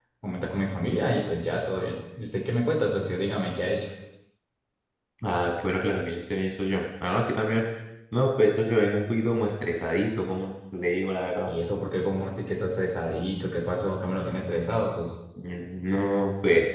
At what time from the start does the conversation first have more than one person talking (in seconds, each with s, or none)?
none